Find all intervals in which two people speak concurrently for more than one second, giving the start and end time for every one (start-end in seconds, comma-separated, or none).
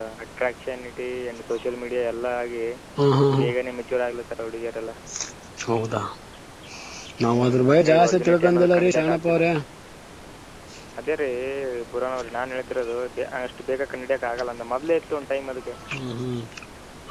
7.3-9.4